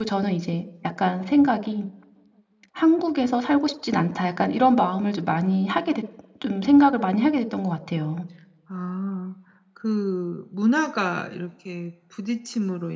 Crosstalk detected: No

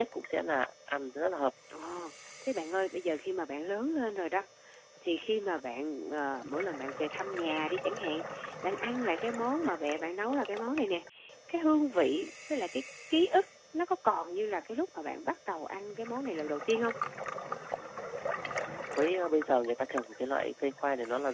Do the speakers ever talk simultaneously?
No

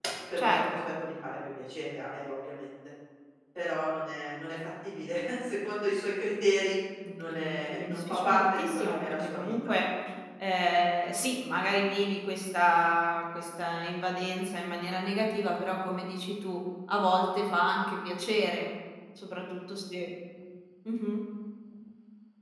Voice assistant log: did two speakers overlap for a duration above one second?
Yes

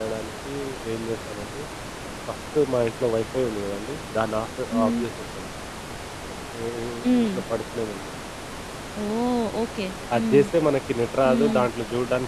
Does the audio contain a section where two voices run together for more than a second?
No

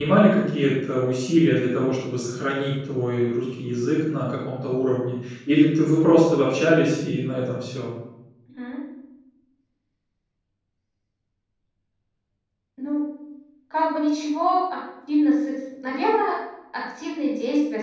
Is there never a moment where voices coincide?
Yes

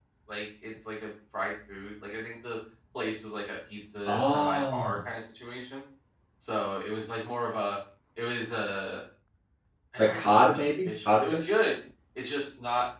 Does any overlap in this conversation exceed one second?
Yes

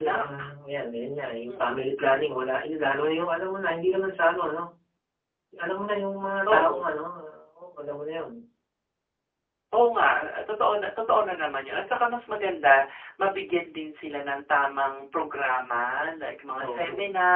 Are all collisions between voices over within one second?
Yes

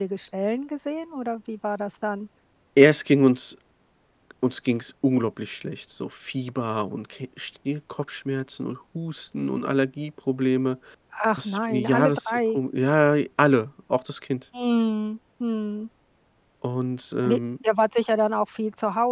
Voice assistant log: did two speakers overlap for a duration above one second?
Yes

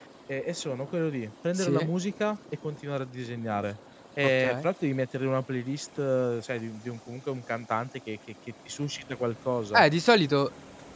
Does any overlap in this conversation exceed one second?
No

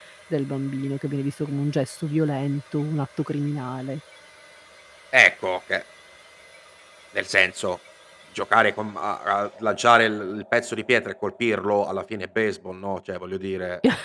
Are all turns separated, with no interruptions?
Yes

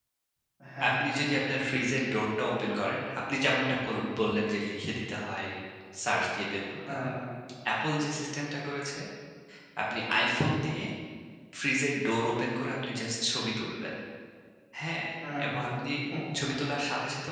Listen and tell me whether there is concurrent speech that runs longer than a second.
No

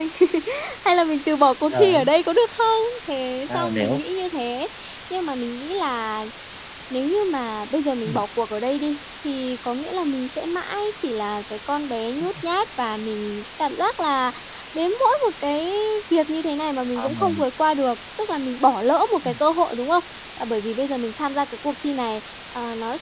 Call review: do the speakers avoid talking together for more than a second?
Yes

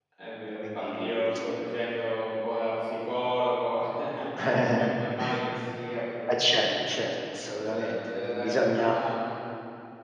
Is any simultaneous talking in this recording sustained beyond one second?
Yes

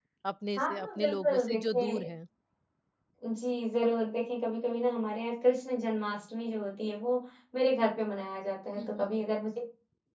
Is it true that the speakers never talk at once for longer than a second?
No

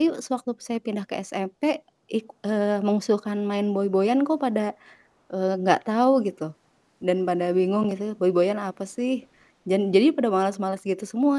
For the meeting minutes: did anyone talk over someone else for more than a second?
No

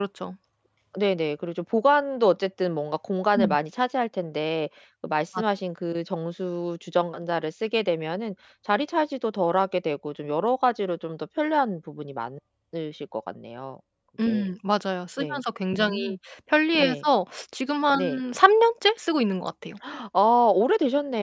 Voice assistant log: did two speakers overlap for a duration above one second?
No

